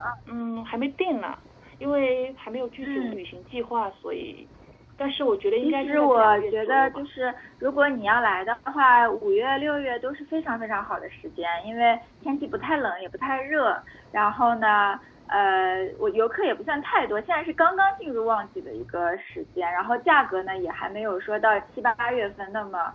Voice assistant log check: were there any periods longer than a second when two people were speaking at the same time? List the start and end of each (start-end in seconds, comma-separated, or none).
5.5-7.0